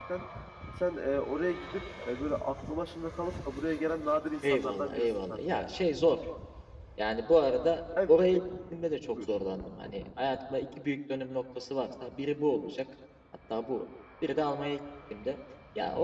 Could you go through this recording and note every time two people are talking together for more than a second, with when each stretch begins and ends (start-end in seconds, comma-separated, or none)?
4.4-5.7